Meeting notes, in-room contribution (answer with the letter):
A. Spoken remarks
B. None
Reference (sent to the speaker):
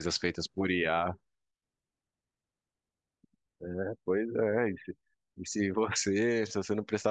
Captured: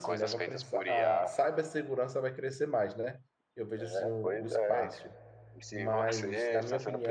A